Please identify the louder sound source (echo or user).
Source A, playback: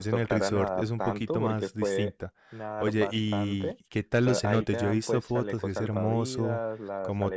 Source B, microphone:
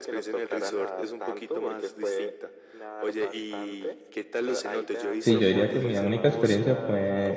user